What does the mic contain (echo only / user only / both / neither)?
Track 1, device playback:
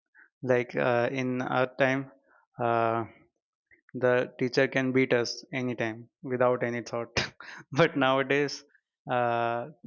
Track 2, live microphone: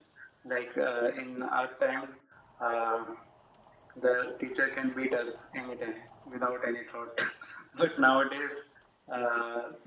echo only